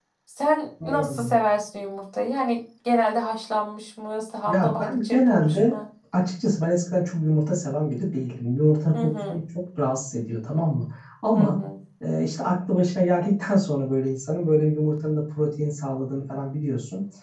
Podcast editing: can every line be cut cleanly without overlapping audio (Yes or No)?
No